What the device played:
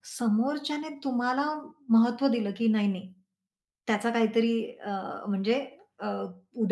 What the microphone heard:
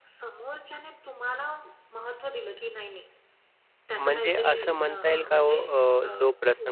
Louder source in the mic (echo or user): user